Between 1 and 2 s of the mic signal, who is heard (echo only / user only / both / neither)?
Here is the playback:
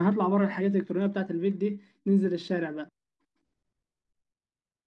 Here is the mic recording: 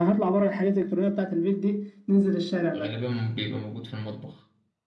echo only